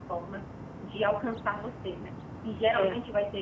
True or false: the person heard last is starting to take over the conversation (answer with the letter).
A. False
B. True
A